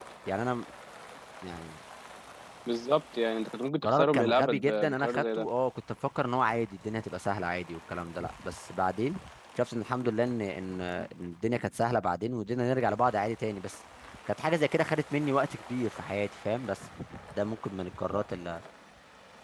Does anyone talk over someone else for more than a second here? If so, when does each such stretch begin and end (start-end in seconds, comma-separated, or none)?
3.8-5.5